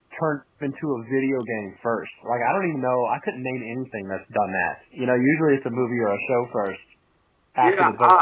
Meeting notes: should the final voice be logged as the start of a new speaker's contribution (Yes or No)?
Yes